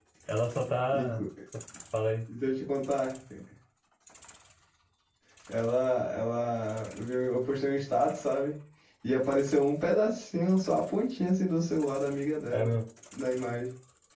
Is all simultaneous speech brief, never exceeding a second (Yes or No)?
Yes